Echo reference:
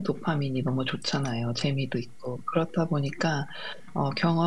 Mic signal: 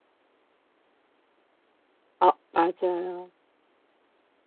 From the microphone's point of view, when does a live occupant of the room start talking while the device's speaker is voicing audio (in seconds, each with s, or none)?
2.2 s